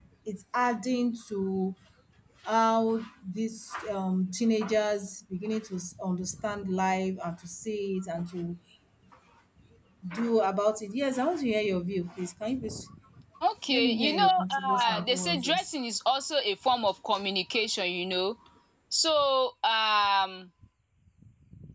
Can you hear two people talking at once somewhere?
Yes, from 13.7 s

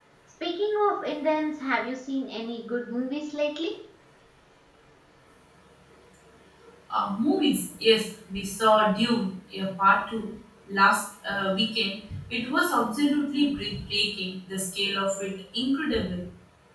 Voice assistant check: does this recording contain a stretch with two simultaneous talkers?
No

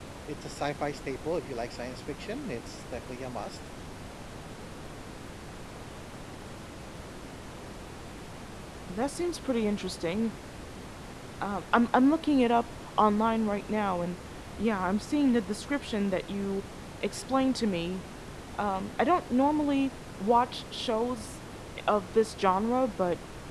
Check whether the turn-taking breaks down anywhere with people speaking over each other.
No

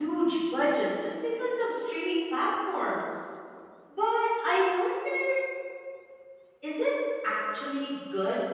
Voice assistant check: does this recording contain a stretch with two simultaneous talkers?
No

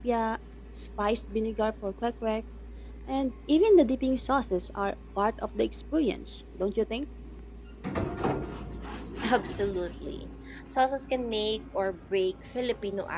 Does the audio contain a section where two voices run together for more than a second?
No

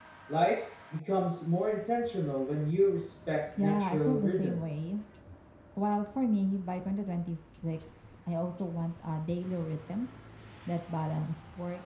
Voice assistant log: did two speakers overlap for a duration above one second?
Yes, from 3.6 s

